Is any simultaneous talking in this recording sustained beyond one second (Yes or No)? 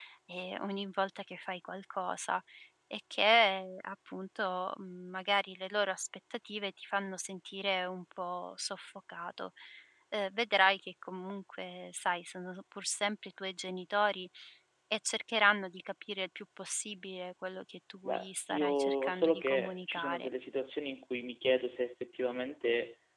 Yes